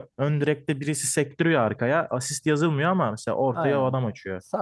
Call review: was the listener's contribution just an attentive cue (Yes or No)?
No